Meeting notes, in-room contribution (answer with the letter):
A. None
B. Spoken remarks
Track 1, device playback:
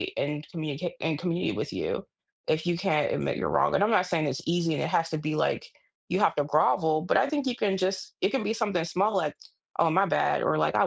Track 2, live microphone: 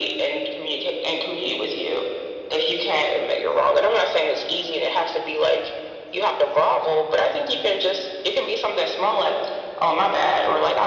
A